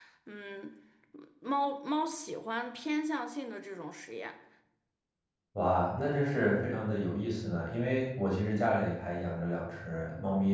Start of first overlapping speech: none

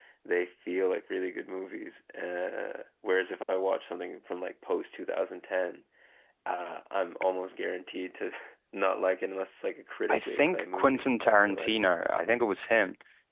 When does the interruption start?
10.1 s

